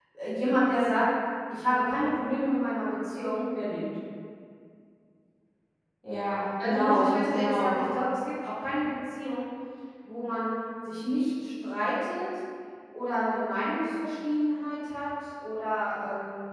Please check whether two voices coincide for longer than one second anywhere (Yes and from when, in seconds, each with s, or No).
Yes, from 6.6 s